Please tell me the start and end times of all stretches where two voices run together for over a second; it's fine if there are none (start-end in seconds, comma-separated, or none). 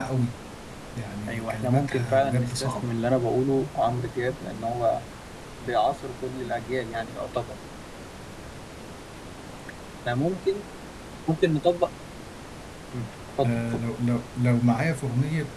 1.3-2.9